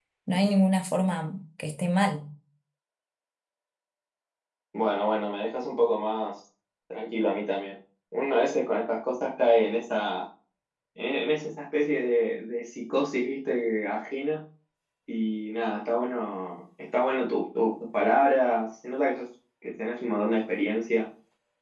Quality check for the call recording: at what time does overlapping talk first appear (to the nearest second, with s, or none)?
none